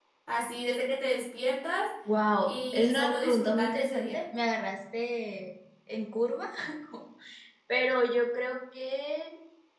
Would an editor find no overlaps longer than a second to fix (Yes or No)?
No